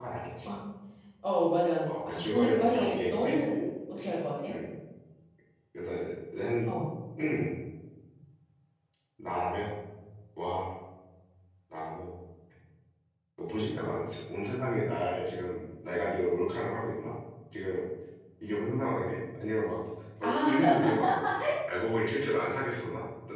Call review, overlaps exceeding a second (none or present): present